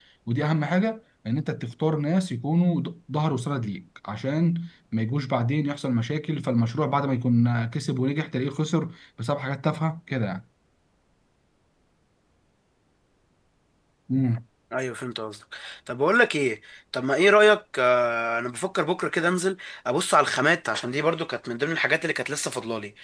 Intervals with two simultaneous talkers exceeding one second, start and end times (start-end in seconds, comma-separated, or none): none